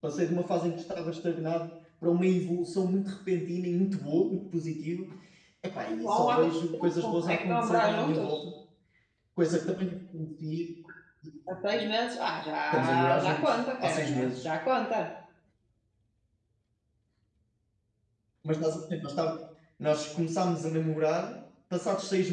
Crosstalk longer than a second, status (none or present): present